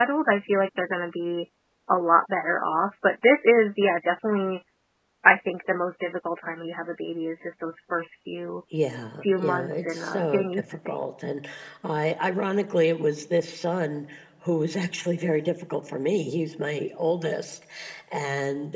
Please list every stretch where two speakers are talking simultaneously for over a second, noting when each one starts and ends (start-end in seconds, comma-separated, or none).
9.4-11.0